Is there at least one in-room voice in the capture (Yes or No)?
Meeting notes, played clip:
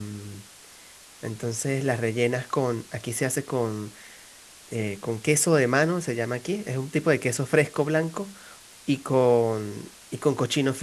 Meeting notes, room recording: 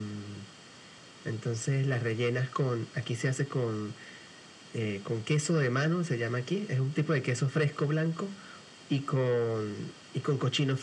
No